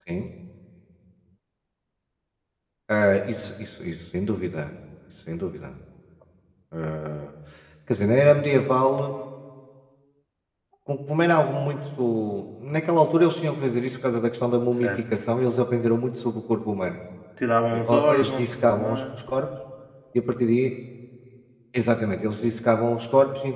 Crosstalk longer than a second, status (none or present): present